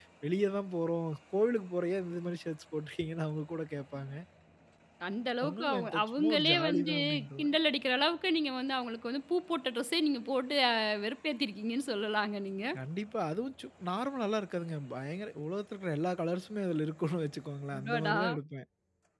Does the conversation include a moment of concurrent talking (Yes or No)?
Yes